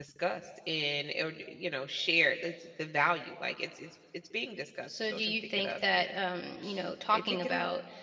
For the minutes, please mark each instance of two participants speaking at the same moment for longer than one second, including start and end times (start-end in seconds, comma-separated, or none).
4.9-6.2